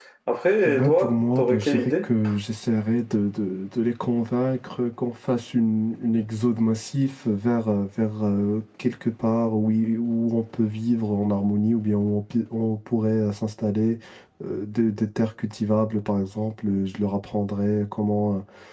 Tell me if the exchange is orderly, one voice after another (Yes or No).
No